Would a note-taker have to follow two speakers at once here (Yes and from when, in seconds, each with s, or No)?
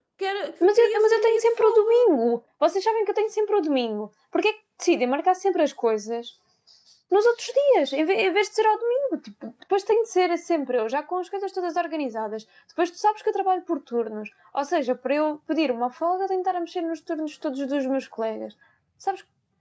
Yes, from 0.6 s